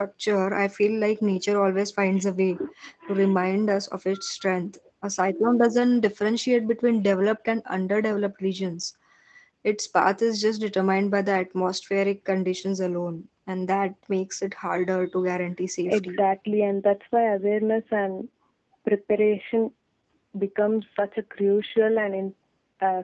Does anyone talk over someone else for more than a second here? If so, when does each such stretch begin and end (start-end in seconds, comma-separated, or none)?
none